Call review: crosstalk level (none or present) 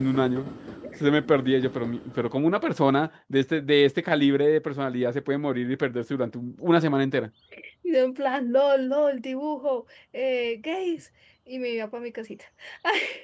none